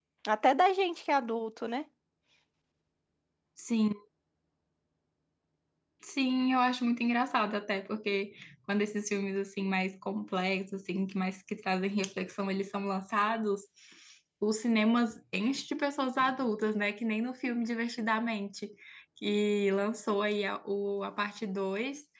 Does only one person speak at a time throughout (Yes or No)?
Yes